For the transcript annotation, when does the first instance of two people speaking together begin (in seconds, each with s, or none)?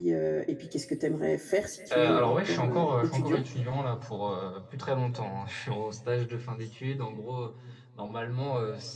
1.9 s